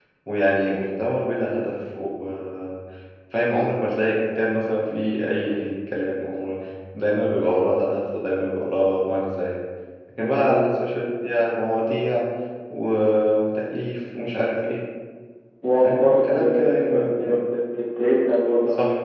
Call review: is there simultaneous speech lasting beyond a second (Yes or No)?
Yes